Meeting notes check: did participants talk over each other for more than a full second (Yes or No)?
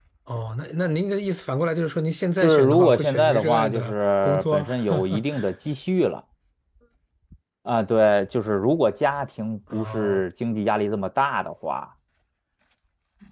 Yes